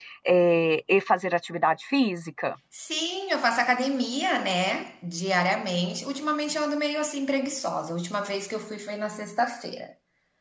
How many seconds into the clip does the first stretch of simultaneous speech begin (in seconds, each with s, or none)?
none